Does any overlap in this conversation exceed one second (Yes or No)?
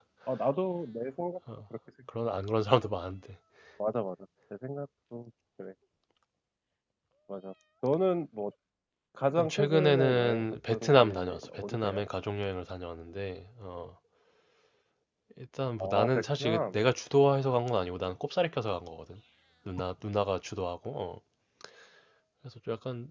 Yes